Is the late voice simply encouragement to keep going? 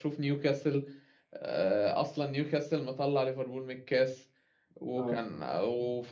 Yes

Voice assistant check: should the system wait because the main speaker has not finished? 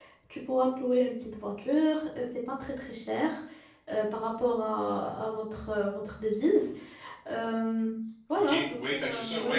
No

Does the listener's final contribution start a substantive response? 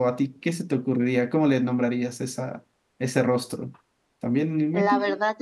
Yes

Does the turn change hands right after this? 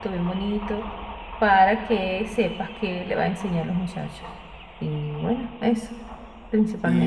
Yes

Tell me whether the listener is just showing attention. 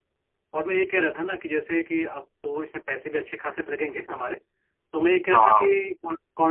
Yes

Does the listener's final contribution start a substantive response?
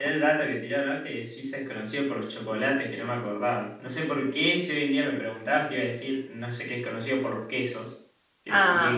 Yes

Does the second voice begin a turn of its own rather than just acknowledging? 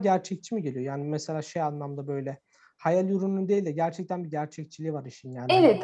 Yes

